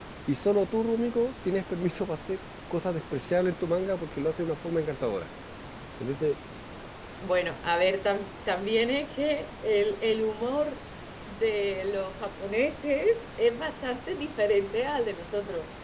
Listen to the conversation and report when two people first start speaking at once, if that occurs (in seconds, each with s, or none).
none